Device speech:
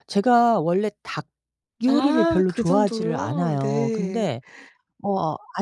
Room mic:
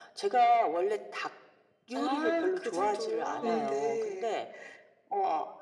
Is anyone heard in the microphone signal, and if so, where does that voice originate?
both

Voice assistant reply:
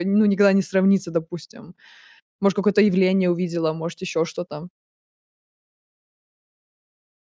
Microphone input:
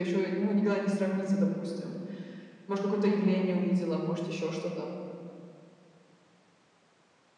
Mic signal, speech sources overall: echo only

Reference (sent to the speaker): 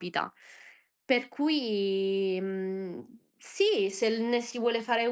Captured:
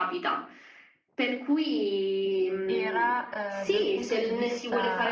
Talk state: both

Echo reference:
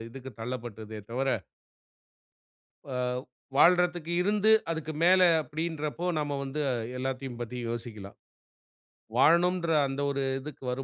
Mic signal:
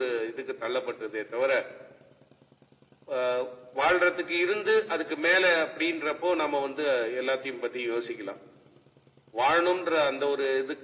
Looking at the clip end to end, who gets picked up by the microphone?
echo only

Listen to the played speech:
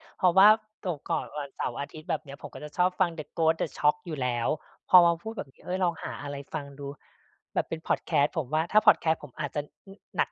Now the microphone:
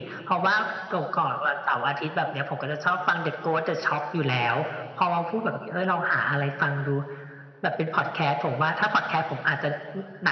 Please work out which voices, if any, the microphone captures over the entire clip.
echo only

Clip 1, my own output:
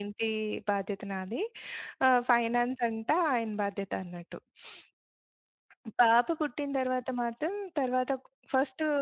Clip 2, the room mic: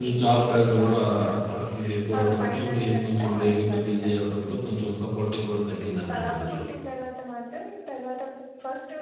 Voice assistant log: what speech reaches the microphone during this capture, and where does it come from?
both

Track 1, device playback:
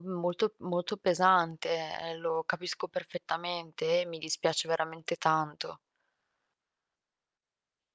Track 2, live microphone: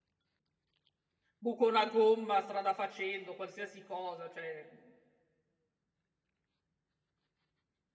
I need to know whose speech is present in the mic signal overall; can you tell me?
user only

